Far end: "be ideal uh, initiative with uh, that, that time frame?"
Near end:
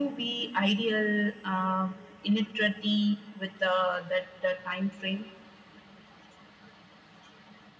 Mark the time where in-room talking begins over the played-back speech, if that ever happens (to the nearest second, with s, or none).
none